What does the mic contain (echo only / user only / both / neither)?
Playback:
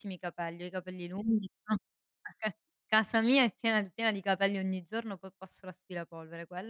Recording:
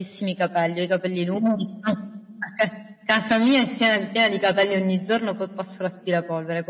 echo only